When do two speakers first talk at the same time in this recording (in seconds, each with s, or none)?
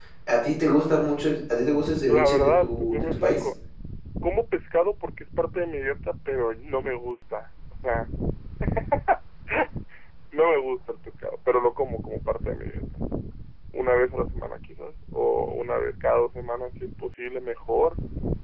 2.1 s